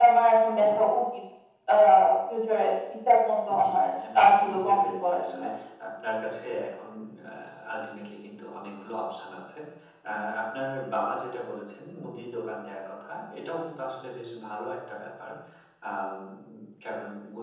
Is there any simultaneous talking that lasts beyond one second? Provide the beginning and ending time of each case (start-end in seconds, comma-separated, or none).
3.6-5.5